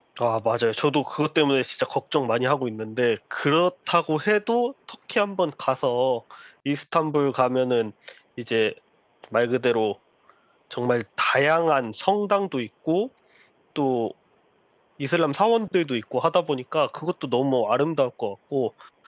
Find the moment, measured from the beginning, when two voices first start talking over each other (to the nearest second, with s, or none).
none